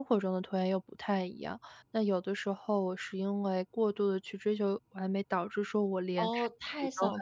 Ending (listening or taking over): taking over